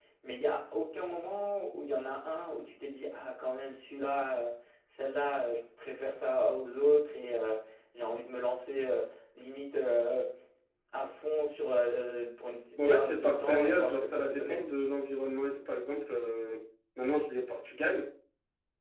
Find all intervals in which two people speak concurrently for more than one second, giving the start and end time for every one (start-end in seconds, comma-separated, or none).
12.8-14.6